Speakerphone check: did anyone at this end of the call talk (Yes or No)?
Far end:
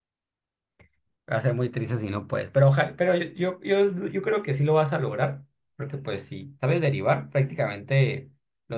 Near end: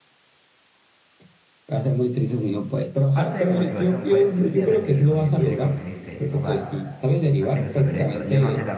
Yes